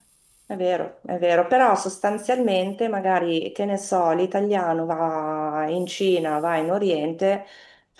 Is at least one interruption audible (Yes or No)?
No